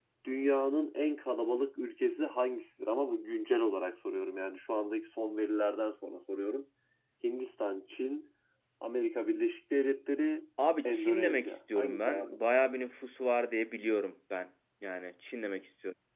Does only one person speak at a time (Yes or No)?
No